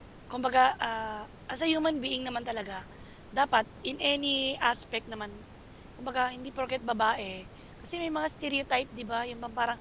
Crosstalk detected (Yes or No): No